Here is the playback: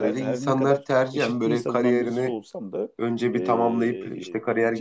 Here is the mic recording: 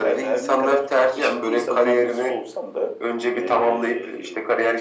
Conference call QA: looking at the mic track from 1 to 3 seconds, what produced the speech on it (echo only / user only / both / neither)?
echo only